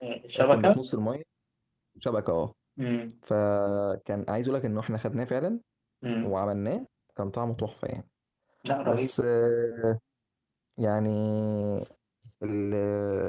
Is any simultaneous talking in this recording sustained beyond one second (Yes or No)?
No